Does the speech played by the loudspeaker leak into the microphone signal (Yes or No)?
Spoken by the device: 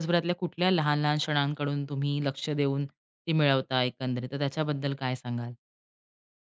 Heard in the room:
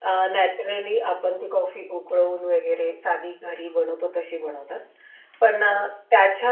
No